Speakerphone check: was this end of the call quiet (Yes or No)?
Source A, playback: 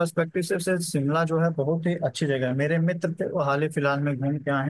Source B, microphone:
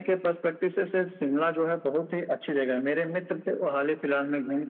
Yes